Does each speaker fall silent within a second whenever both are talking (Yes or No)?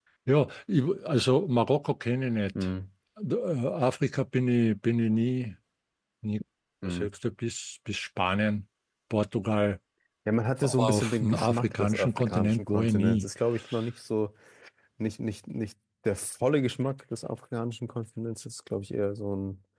No